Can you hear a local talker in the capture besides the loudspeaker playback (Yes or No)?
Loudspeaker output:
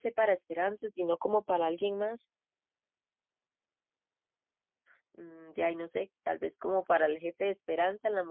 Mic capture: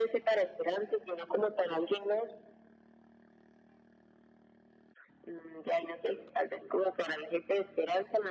No